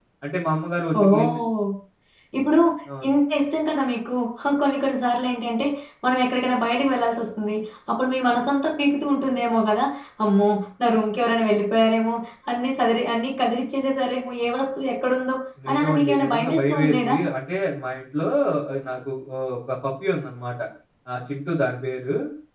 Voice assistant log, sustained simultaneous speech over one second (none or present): present